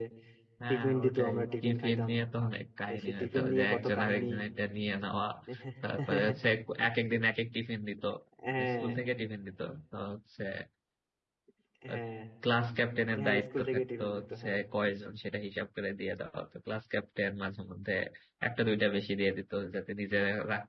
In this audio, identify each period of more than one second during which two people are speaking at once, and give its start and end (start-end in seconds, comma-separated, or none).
0.7-2.1, 2.9-4.3, 13.2-14.6